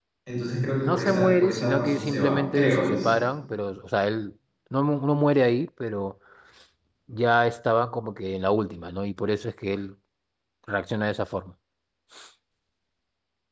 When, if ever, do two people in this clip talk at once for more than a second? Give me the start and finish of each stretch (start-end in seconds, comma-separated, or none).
0.7-3.1